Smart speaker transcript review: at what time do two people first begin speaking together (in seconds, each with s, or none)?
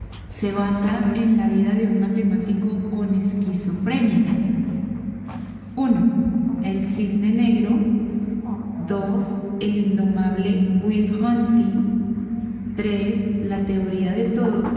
none